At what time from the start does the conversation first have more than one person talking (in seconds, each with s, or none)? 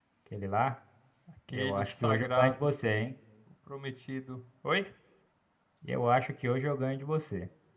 1.5 s